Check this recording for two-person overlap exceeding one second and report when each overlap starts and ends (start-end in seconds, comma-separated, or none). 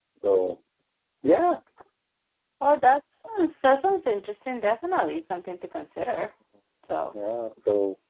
none